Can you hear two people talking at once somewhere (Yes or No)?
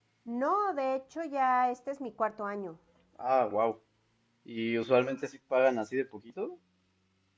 No